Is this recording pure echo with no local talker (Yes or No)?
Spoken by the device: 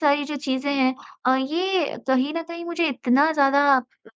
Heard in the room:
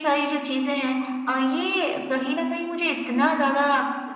Yes